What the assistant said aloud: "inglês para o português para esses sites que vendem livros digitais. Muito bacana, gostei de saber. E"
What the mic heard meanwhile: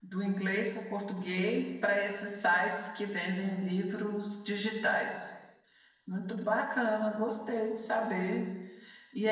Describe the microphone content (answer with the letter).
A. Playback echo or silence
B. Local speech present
A